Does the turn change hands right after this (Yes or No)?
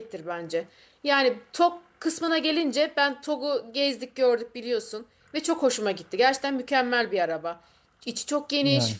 No